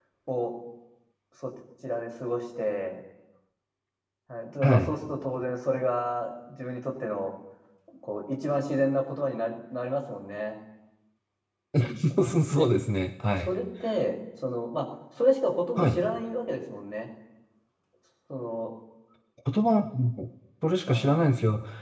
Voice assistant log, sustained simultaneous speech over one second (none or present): none